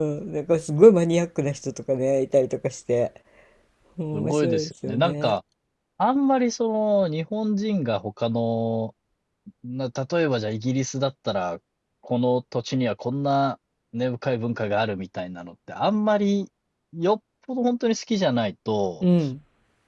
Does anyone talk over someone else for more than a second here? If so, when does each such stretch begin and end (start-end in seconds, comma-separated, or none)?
4.1-5.4